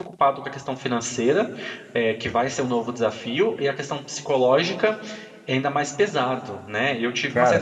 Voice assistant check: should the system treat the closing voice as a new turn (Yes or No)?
No